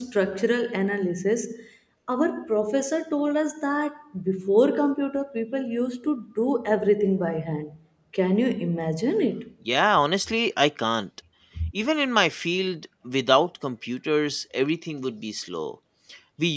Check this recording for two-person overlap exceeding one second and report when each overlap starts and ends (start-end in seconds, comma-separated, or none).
none